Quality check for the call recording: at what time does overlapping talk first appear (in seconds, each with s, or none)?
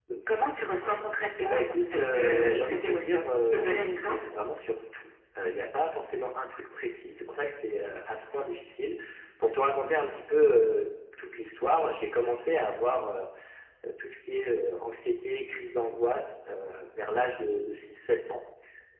1.4 s